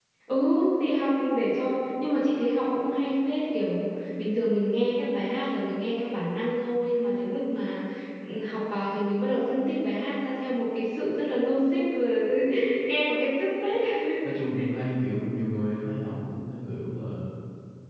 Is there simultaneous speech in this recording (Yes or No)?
No